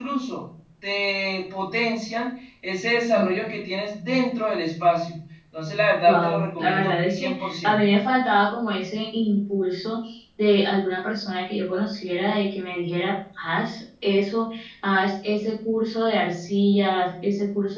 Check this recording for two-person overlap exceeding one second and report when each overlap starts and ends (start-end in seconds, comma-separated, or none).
6.1-7.8